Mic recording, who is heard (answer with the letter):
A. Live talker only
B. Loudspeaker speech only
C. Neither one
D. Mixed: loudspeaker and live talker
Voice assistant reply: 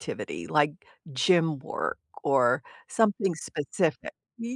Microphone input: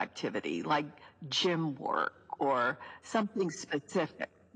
B